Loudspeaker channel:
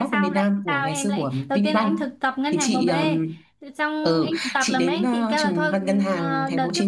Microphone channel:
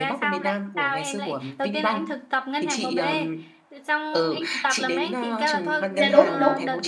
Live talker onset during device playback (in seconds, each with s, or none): 6.0 s